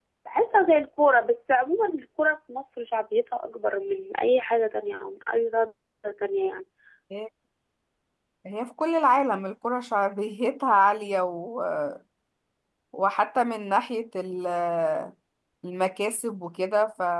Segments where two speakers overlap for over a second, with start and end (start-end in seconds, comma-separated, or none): none